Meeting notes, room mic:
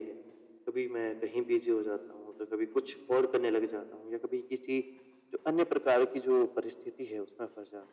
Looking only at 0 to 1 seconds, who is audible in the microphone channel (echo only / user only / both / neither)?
echo only